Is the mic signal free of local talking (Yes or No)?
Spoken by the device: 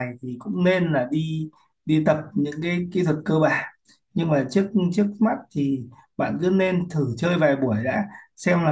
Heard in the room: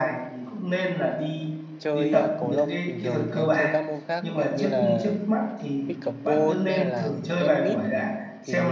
No